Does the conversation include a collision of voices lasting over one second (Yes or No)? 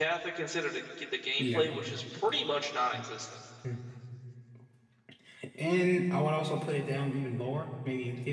No